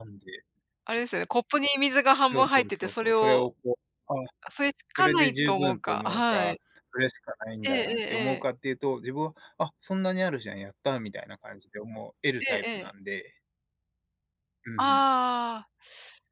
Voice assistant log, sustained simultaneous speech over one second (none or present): present